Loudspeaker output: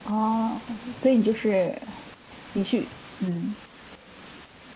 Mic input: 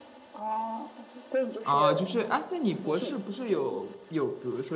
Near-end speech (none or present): present